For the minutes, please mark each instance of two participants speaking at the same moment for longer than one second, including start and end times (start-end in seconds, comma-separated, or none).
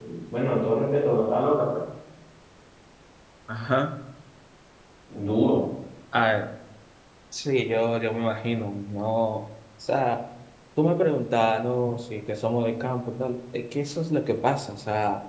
none